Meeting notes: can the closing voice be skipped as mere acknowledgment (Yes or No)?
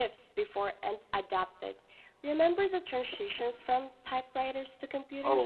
No